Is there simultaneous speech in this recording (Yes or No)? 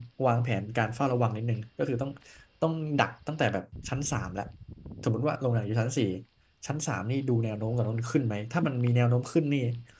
No